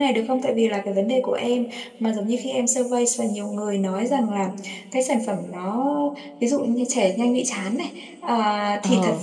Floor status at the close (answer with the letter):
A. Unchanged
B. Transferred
A